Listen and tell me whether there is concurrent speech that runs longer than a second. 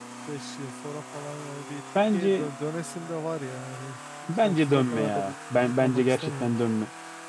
Yes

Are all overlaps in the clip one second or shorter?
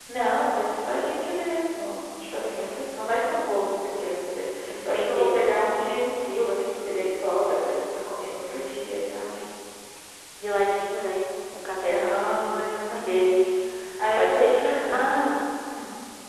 No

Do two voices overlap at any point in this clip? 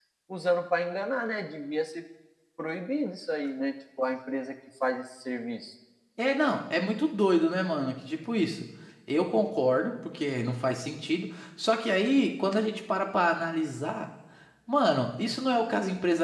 No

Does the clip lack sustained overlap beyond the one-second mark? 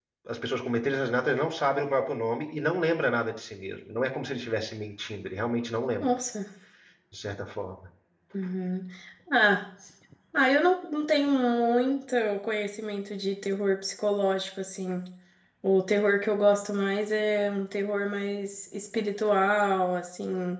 Yes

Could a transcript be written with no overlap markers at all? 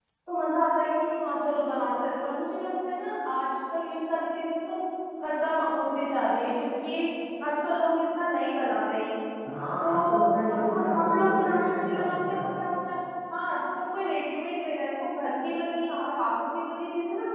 No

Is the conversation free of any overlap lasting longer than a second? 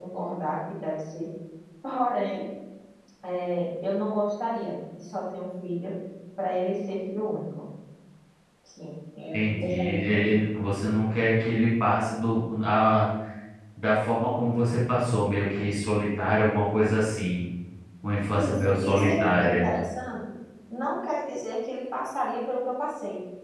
No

